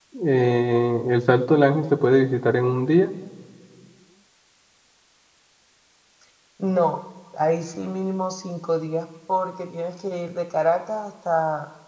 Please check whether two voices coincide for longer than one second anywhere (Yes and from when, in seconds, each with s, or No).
No